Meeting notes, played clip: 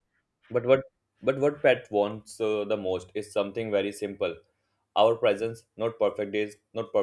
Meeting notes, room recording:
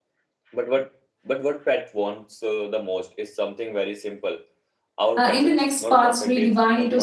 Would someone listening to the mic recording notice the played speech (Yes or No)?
Yes